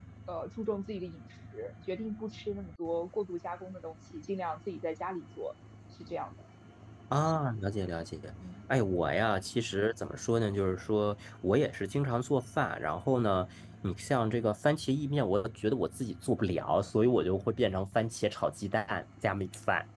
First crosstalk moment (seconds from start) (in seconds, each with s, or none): none